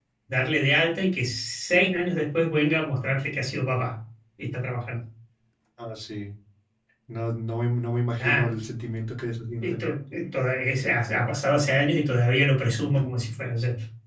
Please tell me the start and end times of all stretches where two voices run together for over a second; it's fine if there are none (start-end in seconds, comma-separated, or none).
none